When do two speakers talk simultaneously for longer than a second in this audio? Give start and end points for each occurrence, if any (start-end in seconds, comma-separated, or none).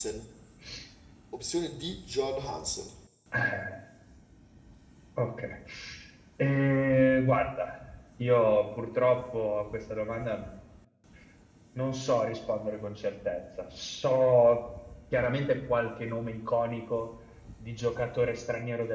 none